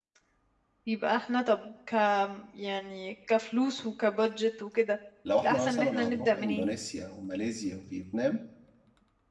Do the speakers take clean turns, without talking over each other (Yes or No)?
No